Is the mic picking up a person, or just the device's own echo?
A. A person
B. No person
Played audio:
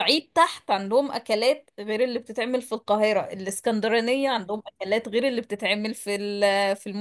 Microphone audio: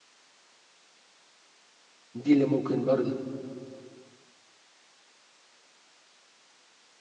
A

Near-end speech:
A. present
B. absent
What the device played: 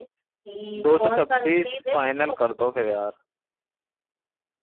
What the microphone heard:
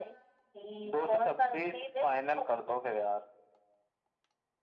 B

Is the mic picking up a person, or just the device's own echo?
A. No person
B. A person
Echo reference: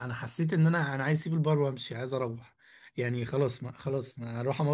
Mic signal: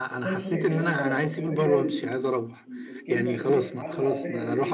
B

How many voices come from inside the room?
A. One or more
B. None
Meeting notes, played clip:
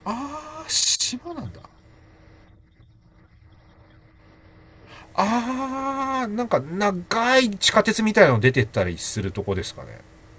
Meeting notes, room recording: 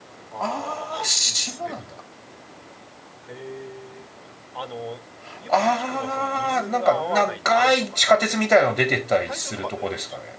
A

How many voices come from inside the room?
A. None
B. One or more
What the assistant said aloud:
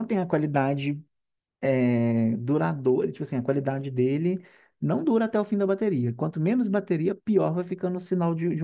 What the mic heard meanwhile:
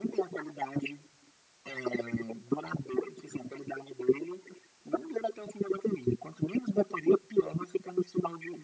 A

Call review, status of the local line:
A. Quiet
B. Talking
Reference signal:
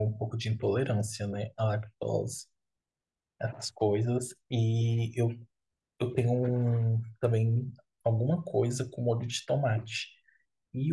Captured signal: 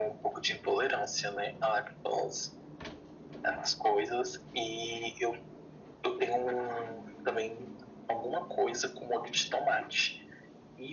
A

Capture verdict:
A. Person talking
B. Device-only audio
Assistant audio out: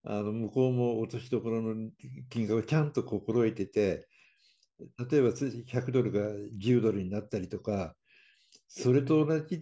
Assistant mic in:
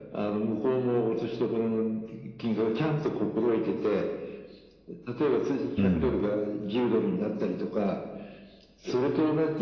A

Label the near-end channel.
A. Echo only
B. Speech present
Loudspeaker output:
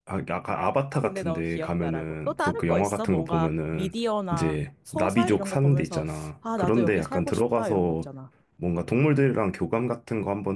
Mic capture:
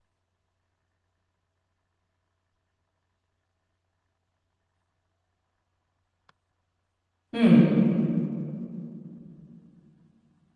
B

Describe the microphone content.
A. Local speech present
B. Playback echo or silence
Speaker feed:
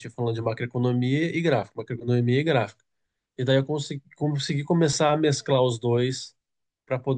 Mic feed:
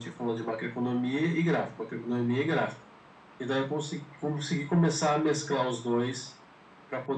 B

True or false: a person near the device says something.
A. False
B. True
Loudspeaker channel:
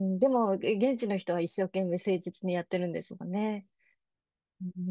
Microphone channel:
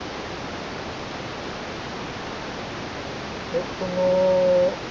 B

